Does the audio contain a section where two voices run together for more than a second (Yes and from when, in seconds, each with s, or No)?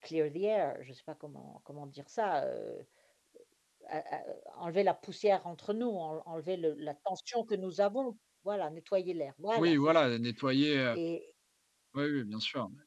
No